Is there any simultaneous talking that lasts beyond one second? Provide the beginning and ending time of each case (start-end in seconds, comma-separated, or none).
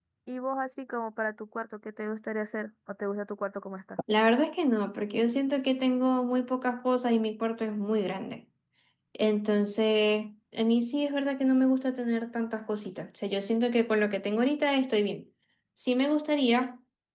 none